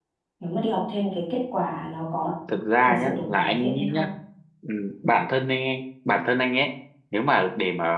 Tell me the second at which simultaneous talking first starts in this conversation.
2.8 s

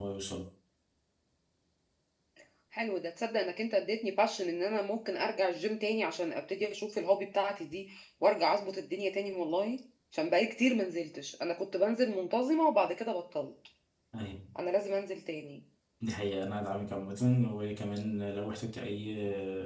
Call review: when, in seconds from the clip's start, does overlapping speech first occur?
none

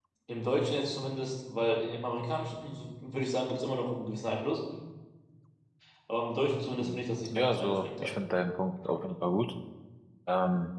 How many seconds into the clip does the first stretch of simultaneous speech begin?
6.8 s

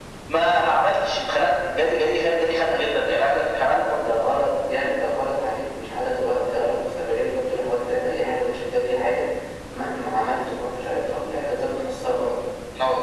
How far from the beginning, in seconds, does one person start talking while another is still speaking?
none

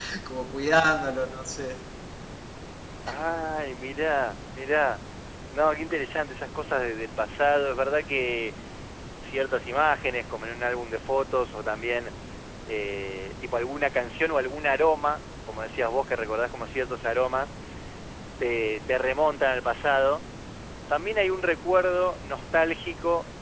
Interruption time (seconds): none

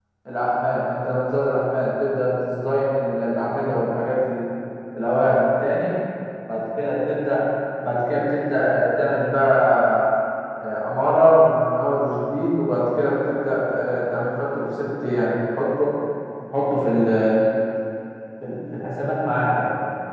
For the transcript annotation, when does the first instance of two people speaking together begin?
none

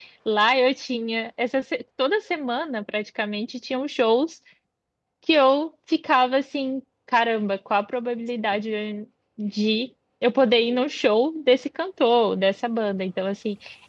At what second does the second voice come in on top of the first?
none

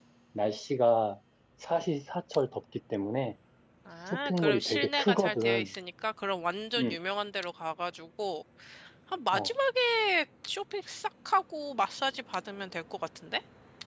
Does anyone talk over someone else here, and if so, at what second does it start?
4.1 s

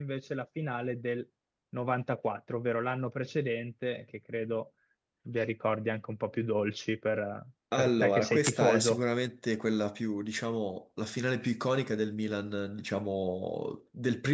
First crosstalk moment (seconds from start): 7.7 s

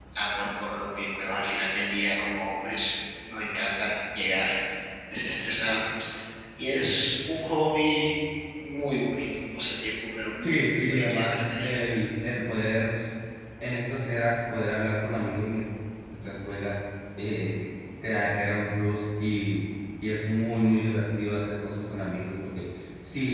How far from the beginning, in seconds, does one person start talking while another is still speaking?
10.4 s

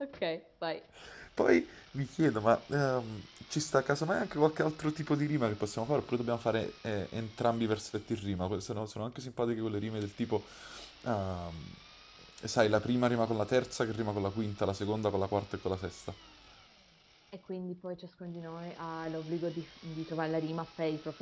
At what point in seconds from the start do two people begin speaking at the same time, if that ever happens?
none

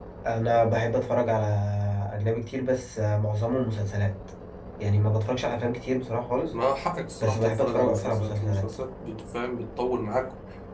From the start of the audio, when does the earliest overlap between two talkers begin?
7.2 s

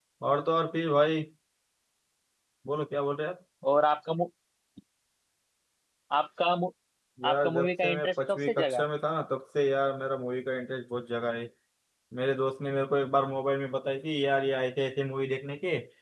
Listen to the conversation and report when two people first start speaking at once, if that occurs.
7.3 s

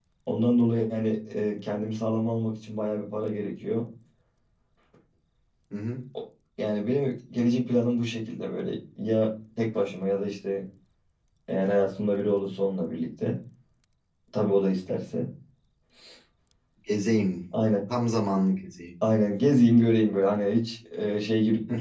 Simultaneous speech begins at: none

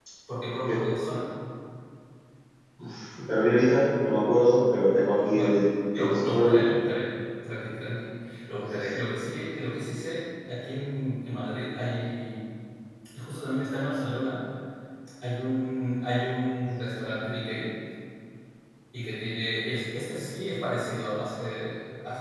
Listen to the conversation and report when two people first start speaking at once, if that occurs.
5.3 s

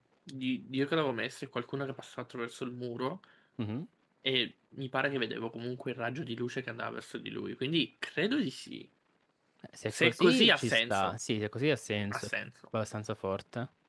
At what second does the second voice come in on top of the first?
9.9 s

